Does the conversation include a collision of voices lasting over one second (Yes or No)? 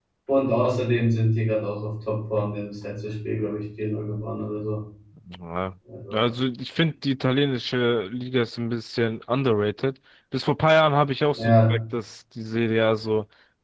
No